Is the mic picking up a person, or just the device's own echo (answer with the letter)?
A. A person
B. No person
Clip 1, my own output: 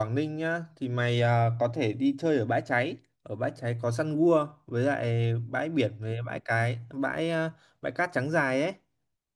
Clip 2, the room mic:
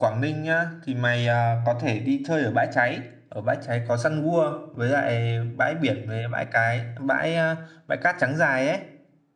B